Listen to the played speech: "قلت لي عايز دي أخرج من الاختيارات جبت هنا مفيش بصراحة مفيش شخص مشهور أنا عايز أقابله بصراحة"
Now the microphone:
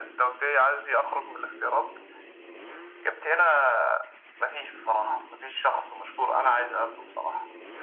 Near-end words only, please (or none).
none